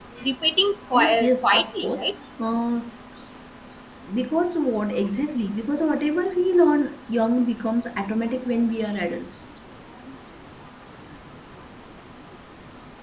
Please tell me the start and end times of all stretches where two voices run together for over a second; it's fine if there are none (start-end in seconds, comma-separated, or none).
0.9-2.1